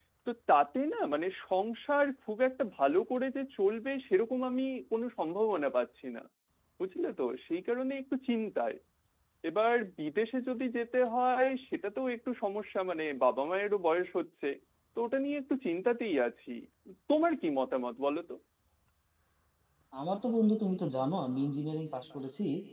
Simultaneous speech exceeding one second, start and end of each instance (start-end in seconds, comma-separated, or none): none